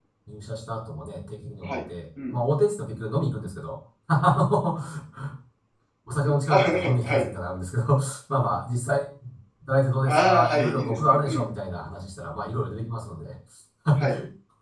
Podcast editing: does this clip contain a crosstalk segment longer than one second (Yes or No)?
Yes